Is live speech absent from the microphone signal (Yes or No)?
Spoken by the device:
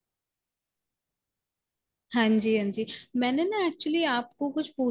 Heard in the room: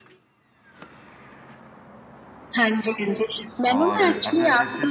No